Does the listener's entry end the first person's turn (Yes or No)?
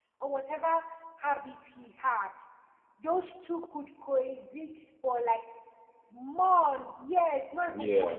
Yes